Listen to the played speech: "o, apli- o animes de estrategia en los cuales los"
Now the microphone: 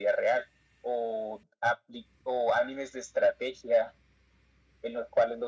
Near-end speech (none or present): none